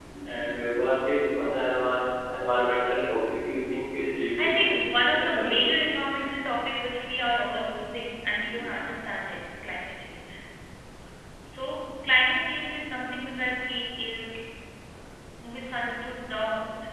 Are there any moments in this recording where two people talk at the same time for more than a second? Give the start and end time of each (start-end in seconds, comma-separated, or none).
4.4-5.8